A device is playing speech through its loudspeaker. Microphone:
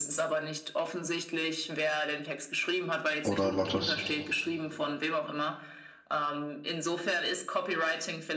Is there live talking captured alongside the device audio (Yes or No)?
Yes